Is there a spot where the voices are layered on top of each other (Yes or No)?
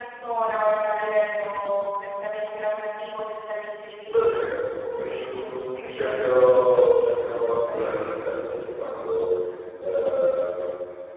Yes